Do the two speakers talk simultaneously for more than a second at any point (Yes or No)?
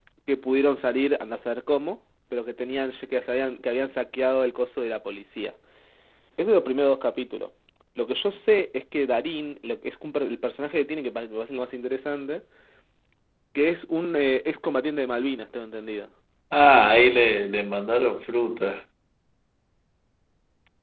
No